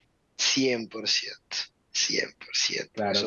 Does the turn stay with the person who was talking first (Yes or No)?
No